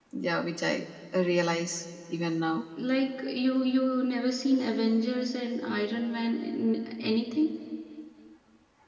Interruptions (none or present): none